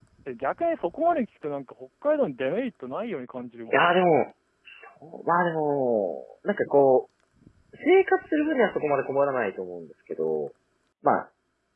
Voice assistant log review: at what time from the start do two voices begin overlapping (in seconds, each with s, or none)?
none